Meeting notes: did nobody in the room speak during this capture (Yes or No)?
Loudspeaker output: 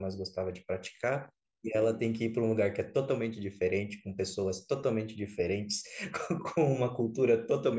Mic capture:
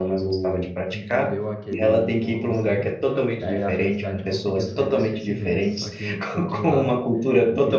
No